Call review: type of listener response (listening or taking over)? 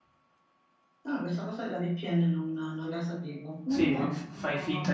taking over